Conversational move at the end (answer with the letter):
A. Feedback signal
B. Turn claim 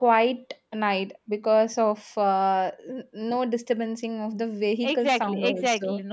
B